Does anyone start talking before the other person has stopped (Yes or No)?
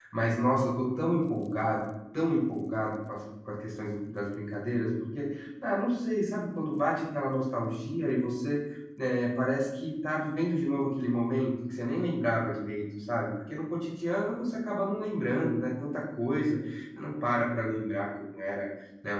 No